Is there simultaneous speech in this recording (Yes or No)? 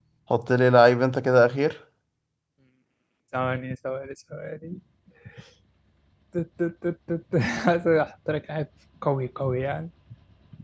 No